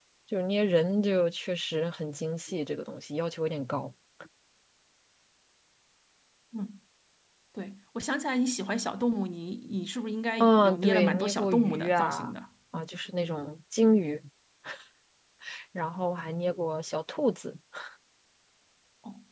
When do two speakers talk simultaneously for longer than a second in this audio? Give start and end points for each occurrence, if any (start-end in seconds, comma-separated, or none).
10.4-12.3